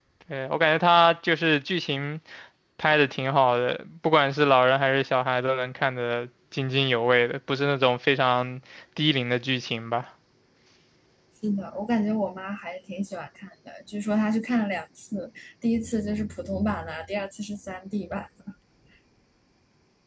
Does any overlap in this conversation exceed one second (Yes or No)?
No